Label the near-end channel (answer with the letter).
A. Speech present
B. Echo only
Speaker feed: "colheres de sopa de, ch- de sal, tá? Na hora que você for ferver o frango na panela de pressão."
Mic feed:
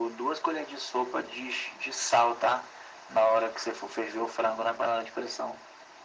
B